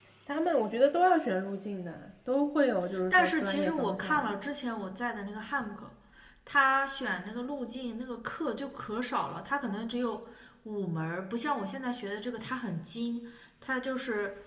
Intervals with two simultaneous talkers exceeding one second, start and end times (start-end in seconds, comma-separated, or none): 3.1-4.3